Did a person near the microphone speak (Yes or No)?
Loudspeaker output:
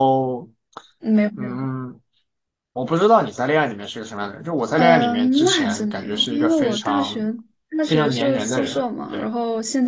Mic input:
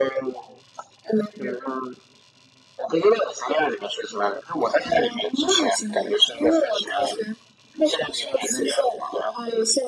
No